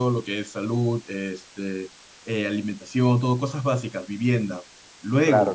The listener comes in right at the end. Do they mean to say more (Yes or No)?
No